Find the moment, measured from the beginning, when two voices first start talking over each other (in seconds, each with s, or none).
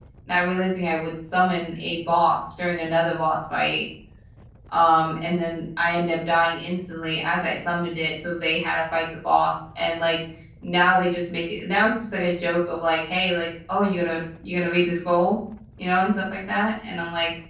none